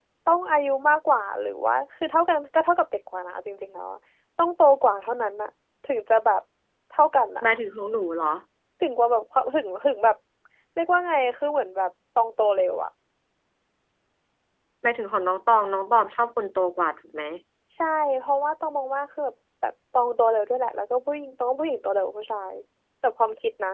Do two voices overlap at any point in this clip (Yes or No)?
No